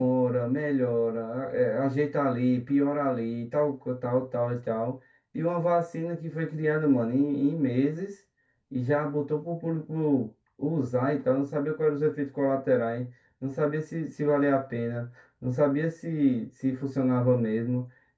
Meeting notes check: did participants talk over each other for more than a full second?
No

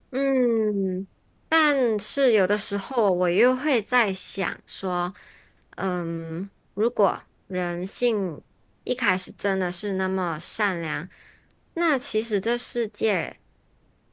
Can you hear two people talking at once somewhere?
No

